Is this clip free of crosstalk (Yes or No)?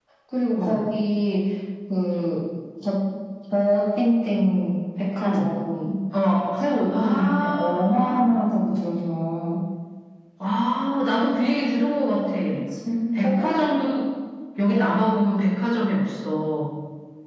No